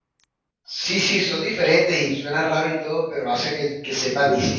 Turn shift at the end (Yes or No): Yes